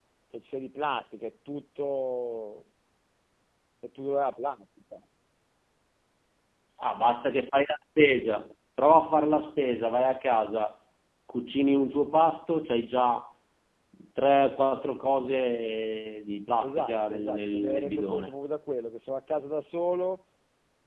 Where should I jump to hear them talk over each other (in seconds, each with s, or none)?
16.6 s